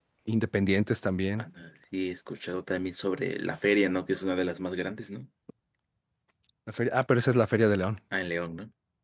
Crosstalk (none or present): none